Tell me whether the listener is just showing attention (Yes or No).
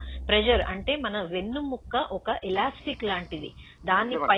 Yes